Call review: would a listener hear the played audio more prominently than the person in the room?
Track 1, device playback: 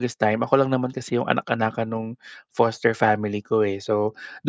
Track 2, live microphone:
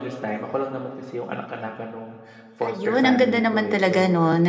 No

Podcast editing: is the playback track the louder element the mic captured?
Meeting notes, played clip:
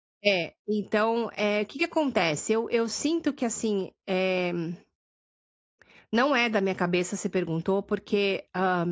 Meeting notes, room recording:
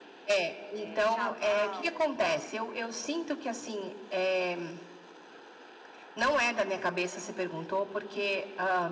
Yes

